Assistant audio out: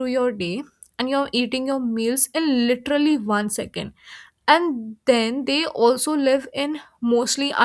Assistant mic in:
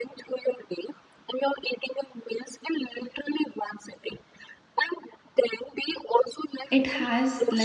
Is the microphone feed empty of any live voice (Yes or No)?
No